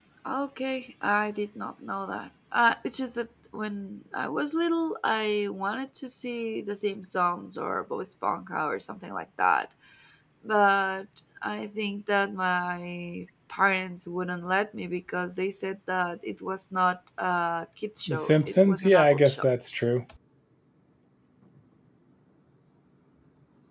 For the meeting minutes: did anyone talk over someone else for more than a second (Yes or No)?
Yes